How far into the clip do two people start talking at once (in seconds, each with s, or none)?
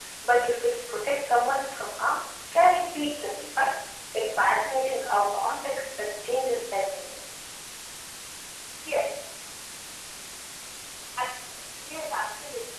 none